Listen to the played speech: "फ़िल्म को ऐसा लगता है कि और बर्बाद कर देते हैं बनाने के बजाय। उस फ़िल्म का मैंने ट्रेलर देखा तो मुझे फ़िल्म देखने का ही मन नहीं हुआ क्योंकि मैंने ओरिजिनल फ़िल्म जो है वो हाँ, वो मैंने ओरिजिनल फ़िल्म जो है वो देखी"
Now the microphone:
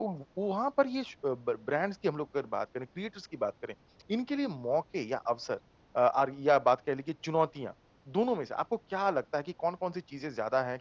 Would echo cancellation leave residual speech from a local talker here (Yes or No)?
Yes